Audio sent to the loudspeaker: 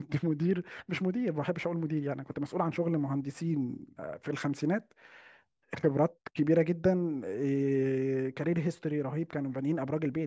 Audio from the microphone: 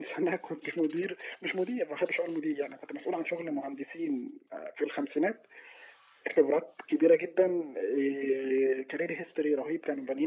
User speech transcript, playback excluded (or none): none